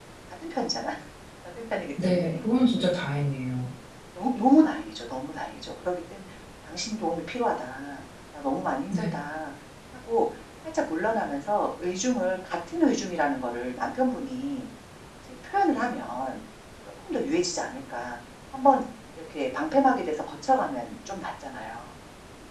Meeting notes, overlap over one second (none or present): none